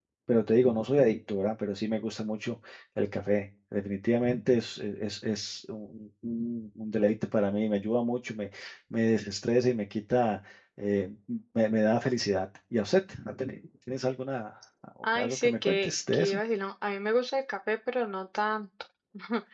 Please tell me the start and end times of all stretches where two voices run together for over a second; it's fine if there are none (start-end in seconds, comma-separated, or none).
15.2-16.4